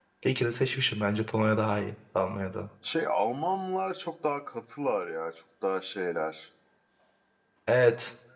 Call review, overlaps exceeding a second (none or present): none